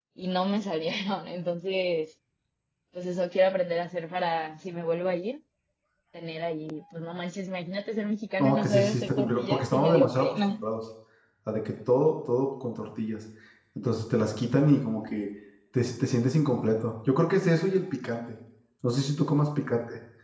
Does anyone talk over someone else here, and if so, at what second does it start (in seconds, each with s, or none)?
8.4 s